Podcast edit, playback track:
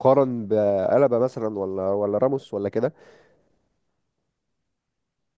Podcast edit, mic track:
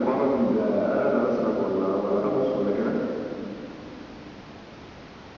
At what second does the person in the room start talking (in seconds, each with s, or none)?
none